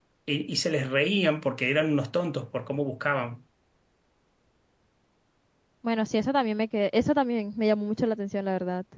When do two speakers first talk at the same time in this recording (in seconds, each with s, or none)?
none